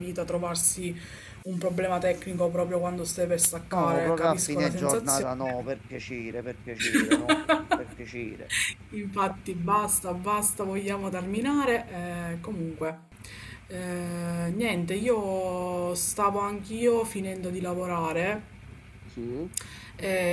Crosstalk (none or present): present